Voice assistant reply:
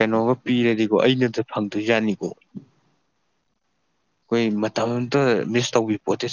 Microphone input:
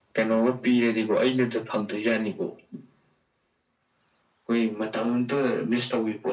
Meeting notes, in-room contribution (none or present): none